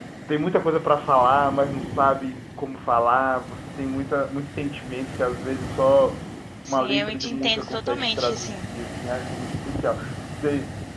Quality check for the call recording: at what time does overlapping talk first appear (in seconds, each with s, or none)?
6.7 s